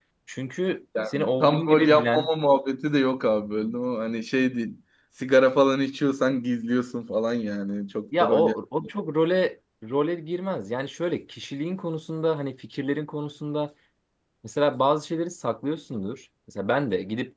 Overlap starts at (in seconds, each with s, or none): 1.1 s